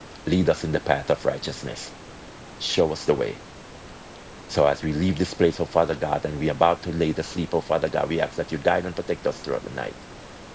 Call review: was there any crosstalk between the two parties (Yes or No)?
No